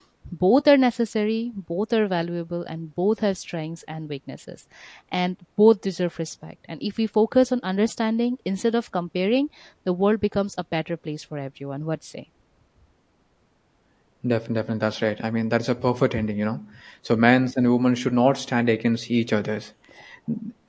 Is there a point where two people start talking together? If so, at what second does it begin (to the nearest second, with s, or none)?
none